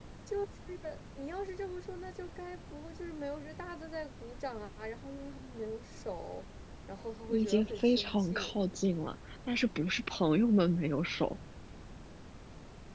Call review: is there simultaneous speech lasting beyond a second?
Yes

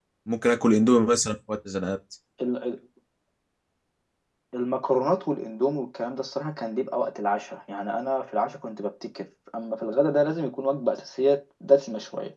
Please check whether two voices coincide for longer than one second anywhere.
No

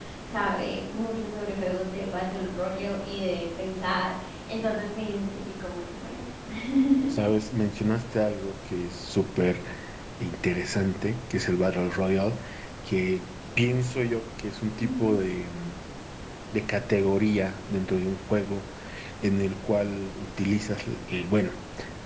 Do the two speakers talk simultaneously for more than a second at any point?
No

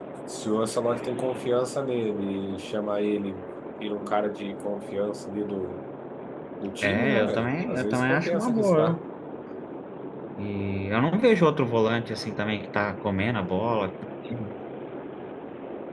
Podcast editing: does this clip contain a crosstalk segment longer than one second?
Yes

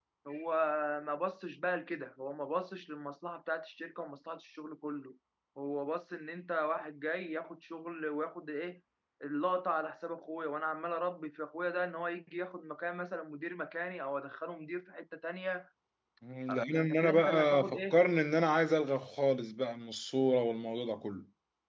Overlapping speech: Yes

